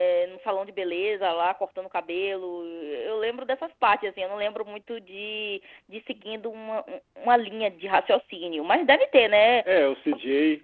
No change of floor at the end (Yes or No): No